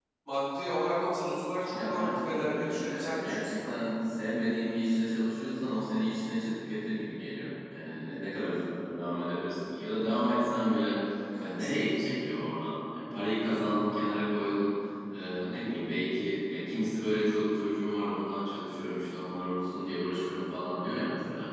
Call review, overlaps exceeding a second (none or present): present